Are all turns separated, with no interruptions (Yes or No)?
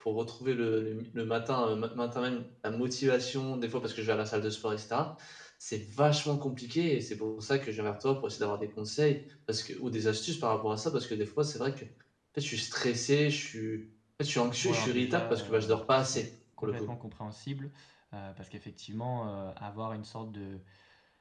No